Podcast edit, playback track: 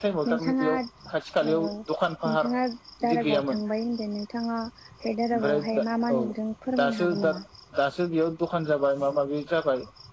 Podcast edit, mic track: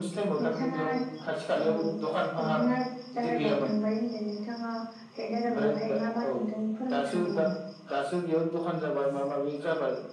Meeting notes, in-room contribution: none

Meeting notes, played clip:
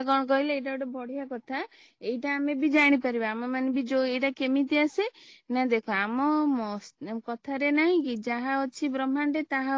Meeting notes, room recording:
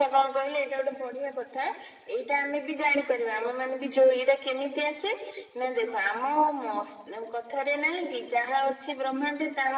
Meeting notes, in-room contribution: none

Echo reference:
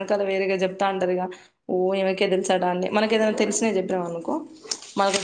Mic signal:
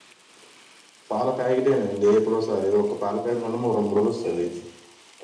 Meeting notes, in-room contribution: present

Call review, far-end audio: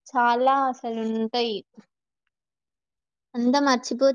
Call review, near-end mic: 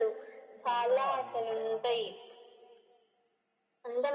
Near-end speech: present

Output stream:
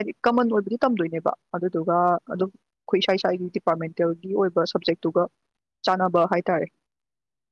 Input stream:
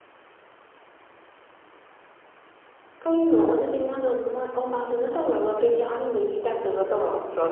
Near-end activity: present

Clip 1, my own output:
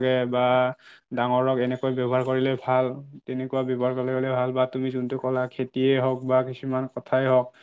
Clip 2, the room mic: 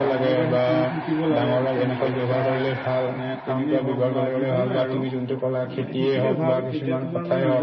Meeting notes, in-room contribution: present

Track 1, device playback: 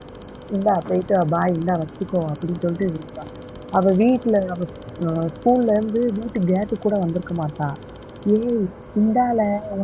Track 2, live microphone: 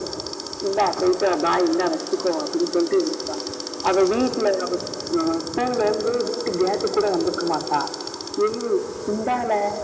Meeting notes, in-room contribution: none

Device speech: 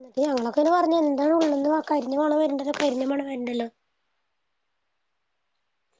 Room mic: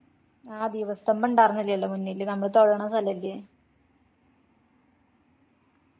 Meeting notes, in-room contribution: present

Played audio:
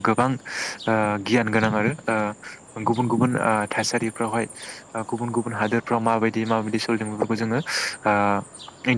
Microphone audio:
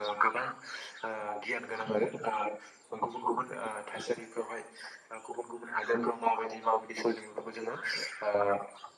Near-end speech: none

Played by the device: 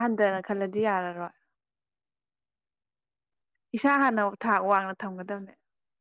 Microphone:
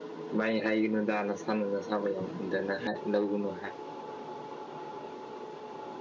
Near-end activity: present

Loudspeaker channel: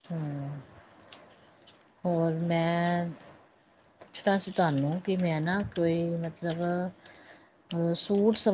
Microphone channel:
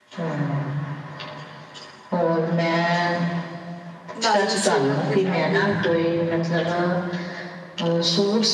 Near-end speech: present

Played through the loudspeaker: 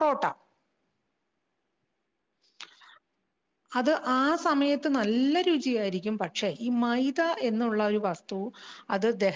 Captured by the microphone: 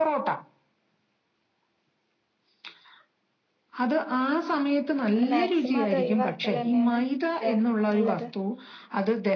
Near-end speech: present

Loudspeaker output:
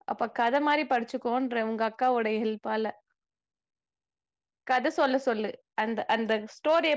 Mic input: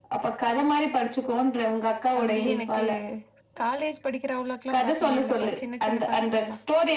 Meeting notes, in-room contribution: present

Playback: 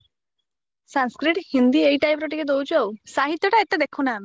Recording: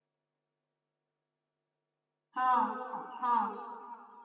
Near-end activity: present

